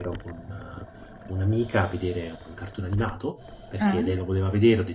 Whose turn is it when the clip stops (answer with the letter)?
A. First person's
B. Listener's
A